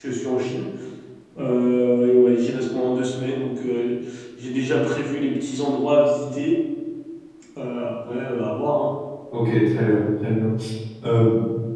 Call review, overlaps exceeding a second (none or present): none